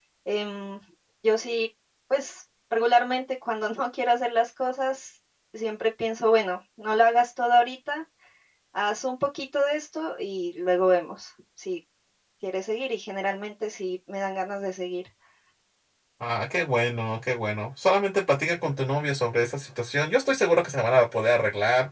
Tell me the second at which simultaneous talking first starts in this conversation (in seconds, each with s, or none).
none